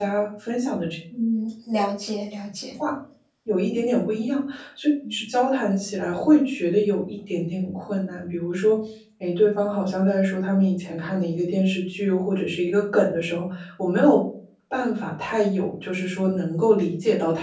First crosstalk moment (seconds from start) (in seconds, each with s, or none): none